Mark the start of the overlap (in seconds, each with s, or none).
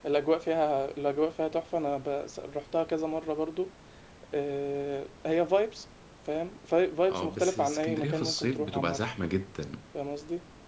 7.1 s